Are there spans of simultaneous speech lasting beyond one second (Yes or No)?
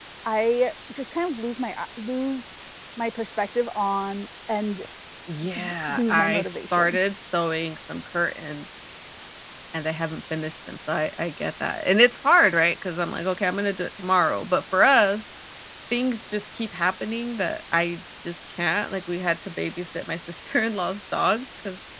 Yes